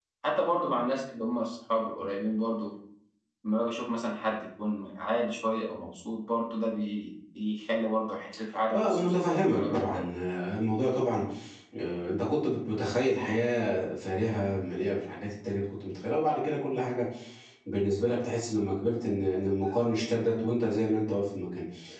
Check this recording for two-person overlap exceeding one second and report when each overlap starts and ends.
8.7-10.0

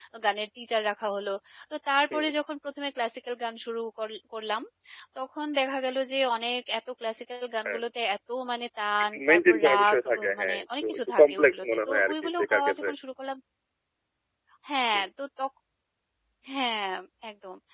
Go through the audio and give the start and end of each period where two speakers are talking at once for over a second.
9.1-12.9

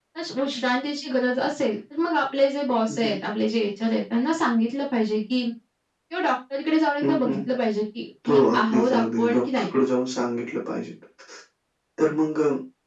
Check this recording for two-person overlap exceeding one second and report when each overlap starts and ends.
8.3-9.6

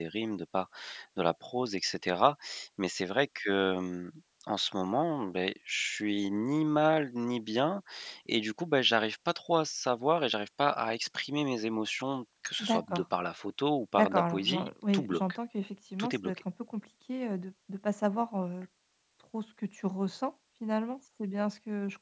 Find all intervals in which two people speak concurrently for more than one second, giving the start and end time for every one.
13.9-15.2

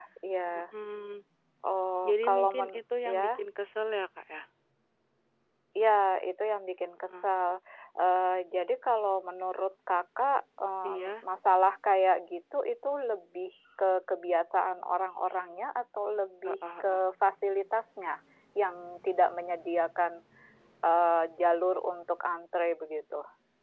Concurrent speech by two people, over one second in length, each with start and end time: 2.1-3.3

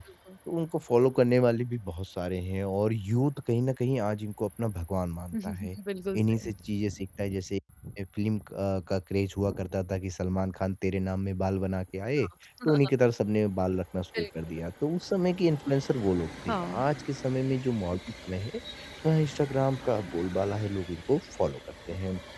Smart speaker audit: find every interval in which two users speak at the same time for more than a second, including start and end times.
none

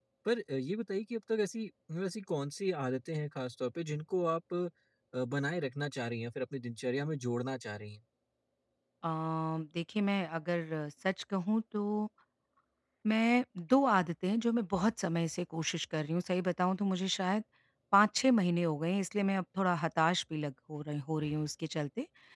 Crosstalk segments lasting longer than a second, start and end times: none

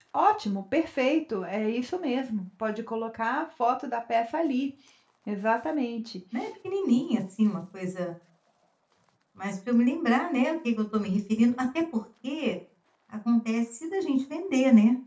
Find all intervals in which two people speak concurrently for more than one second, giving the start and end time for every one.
none

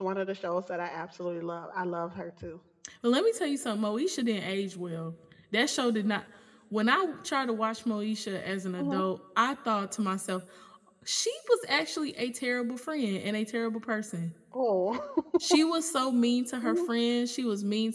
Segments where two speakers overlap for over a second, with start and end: none

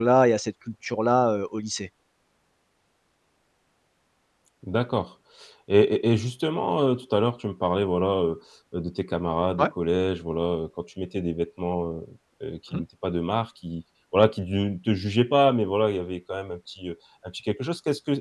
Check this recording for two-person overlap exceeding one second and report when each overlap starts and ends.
none

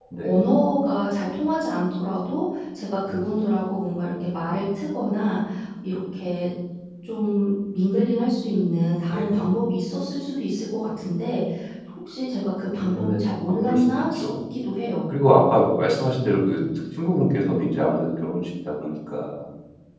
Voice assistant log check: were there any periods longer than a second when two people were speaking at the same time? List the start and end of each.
12.8-14.2

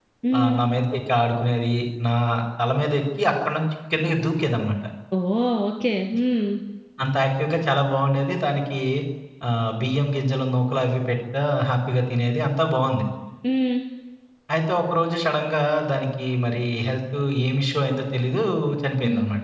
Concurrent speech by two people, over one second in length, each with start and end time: none

